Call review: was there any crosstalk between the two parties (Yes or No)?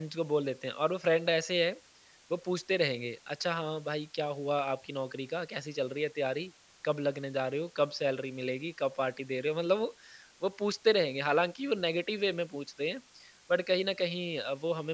No